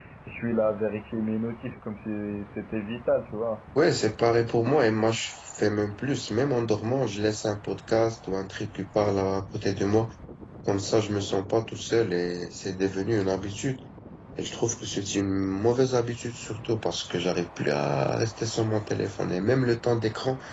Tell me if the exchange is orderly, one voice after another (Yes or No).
Yes